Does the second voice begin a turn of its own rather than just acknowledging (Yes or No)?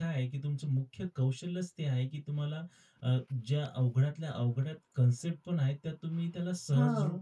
No